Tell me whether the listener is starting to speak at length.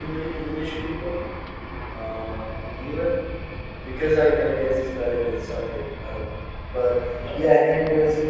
No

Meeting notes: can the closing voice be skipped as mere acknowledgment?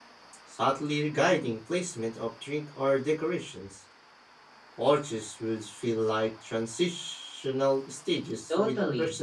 No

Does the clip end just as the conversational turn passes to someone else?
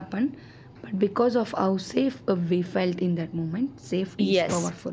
Yes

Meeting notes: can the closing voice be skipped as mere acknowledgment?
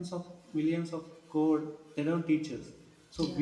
Yes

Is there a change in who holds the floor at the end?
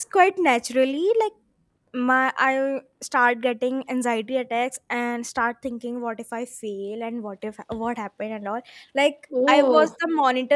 No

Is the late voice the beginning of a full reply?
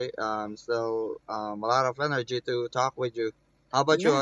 Yes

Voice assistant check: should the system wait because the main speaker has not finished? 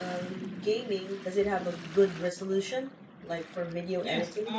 No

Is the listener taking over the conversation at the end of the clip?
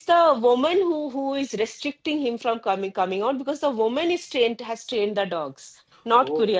Yes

